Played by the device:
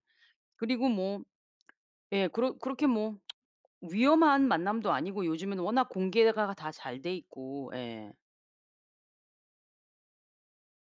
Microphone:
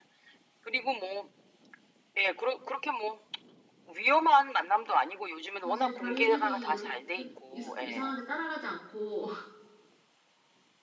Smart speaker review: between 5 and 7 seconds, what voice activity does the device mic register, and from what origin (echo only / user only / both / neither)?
both